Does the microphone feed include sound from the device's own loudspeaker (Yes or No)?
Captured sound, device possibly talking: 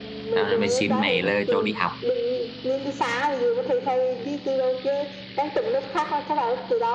Yes